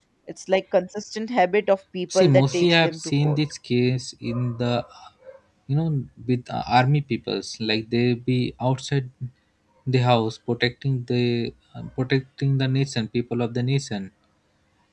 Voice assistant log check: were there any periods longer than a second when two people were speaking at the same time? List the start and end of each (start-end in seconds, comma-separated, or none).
2.1-3.4